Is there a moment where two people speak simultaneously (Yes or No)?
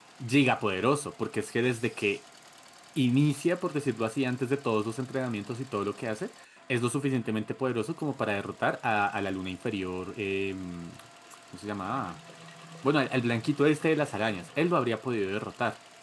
No